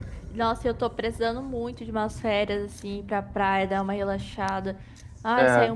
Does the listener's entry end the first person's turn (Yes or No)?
No